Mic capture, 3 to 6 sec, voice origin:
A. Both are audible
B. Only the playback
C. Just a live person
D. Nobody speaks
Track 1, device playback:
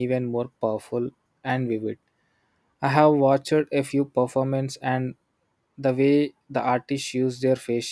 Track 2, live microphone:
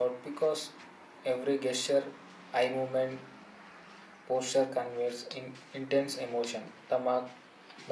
C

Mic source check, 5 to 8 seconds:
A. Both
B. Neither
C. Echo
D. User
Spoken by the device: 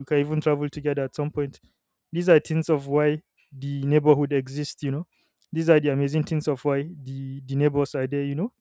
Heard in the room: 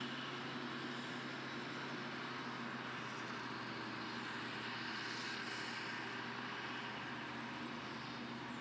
B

